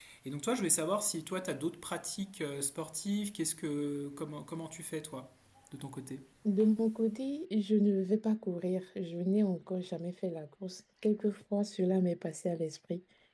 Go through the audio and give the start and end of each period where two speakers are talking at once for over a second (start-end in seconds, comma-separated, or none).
none